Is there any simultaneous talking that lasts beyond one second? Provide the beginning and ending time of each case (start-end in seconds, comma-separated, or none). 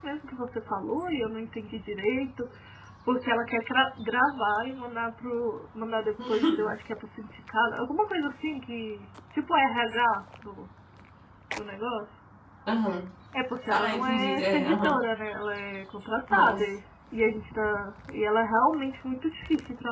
13.7-15.0